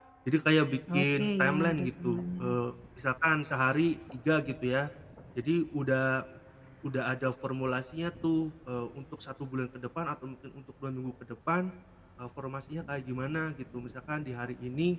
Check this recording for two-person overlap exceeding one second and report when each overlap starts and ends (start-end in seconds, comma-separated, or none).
1.0-2.5